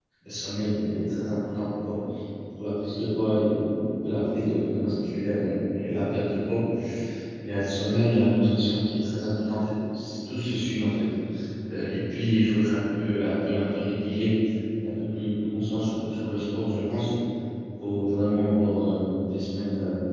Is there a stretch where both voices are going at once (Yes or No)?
No